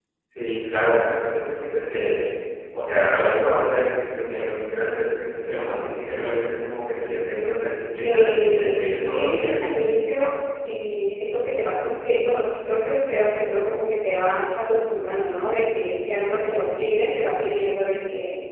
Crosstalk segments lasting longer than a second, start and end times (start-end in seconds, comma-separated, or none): 8.0-9.6